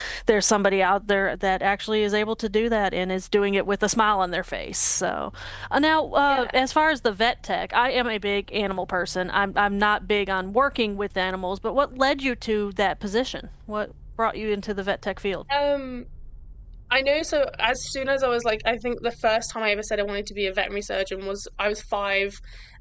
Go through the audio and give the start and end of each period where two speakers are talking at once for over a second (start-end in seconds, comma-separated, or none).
none